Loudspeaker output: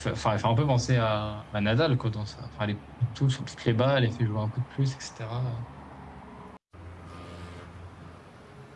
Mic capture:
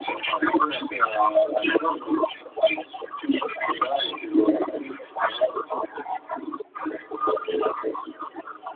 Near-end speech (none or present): none